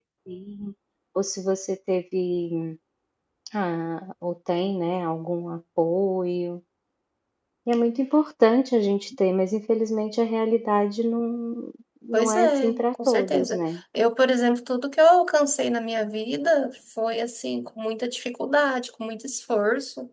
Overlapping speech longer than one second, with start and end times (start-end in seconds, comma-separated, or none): 12.1-13.6